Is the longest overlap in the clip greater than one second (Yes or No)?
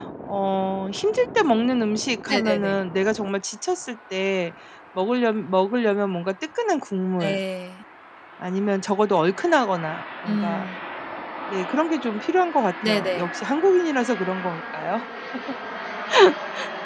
No